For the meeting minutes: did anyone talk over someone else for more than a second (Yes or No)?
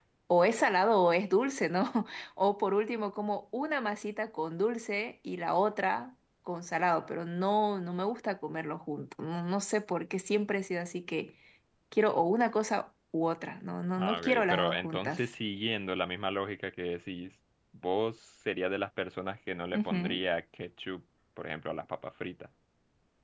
Yes